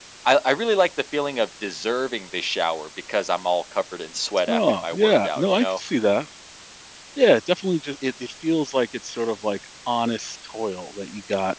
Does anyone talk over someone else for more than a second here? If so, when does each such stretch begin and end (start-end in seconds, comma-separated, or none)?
4.5-5.8